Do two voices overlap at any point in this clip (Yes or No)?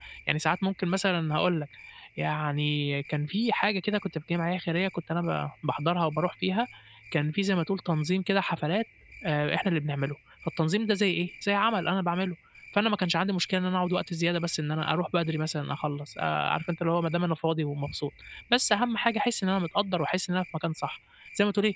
No